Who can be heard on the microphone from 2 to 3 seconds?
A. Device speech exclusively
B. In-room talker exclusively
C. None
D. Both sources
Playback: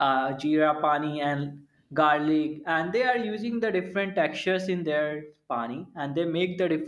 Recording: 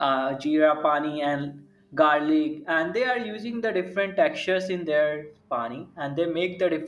A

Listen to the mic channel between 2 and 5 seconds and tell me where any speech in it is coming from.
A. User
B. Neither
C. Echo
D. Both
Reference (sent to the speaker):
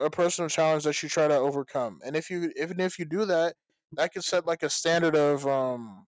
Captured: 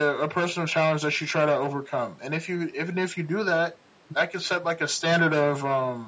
C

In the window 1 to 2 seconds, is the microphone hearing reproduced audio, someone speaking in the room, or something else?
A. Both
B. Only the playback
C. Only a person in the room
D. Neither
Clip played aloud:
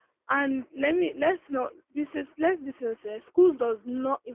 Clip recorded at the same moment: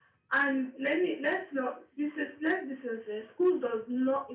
B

